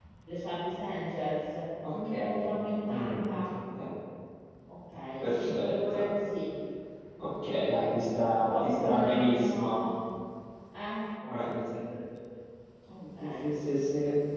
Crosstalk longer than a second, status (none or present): present